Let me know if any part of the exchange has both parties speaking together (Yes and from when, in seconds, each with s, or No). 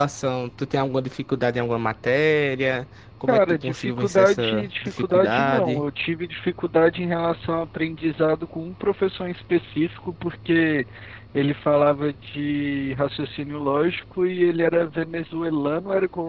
Yes, from 3.3 s